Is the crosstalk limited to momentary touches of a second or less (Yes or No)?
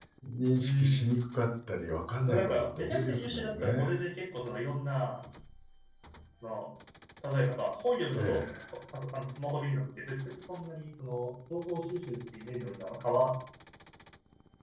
No